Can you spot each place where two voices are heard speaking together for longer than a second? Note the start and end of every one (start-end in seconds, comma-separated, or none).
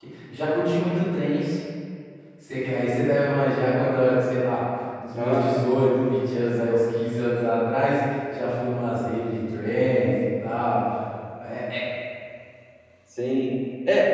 none